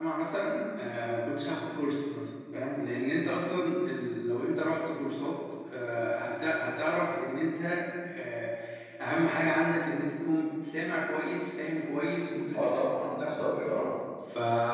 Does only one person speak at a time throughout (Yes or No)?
No